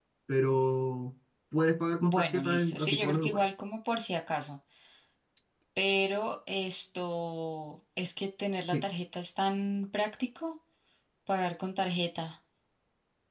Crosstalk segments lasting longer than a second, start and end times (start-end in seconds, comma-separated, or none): 2.0-3.5